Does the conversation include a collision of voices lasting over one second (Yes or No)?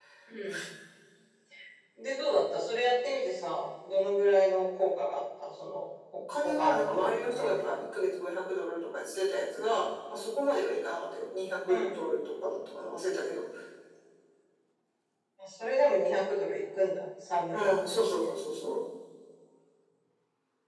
Yes